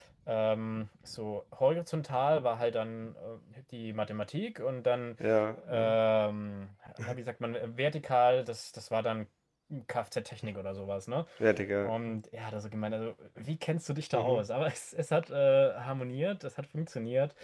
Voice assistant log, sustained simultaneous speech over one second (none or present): none